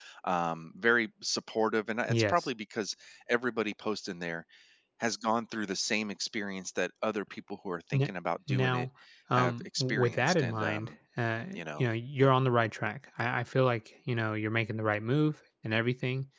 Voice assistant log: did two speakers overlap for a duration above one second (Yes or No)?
Yes